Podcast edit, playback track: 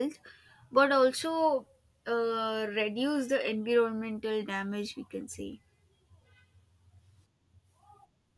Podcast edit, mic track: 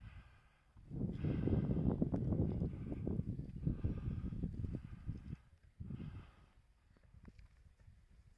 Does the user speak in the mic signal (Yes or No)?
No